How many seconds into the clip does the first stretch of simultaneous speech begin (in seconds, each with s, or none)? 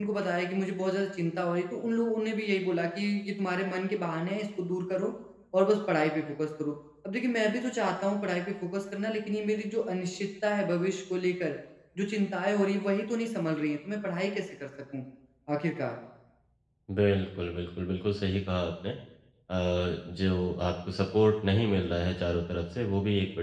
none